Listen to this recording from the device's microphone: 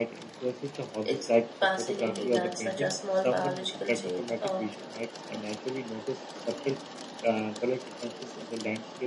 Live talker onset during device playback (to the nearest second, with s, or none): 1 s